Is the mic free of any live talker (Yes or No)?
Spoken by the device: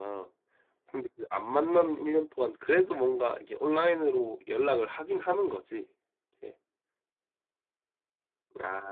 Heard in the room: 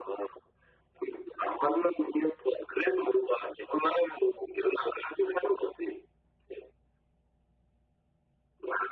Yes